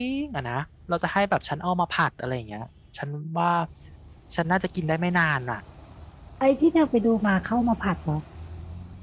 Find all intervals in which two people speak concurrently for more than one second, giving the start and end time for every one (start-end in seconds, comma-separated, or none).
none